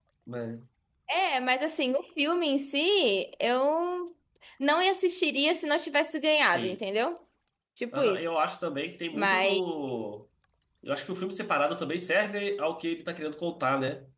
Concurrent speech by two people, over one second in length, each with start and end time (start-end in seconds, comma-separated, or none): none